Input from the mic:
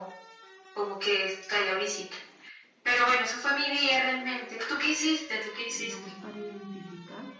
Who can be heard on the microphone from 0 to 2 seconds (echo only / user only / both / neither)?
echo only